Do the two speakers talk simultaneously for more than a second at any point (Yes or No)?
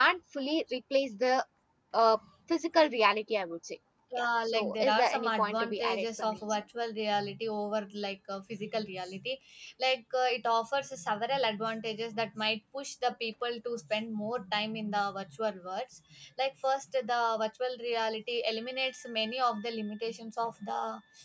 Yes